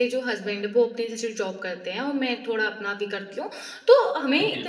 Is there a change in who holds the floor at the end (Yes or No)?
No